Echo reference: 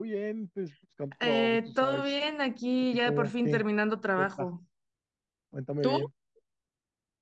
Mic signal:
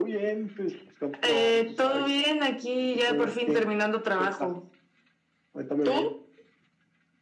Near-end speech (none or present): none